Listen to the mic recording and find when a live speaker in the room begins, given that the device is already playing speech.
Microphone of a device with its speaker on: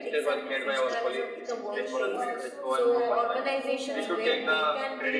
1.4 s

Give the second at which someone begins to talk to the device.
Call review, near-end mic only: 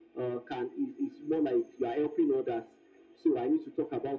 none

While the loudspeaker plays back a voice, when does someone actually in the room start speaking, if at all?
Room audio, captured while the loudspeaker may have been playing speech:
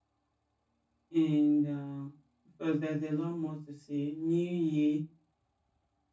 1.1 s

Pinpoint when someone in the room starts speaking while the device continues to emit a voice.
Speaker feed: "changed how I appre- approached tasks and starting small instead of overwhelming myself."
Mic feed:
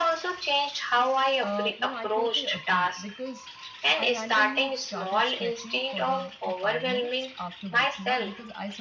1.4 s

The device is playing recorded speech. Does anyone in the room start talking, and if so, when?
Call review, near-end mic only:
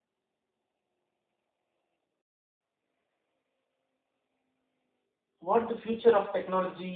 5.4 s

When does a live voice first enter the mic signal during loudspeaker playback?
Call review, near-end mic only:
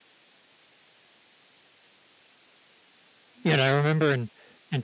3.4 s

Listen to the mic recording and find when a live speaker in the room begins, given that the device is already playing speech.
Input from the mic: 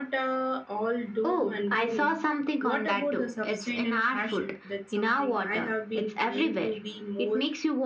none

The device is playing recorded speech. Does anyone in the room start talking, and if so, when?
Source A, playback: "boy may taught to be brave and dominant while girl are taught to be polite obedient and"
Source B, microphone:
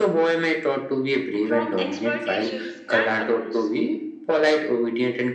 1.4 s

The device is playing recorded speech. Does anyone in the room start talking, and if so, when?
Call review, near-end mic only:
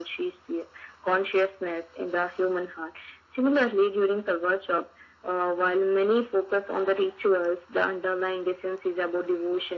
none

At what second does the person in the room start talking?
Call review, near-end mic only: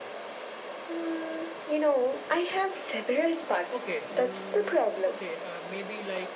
3.7 s

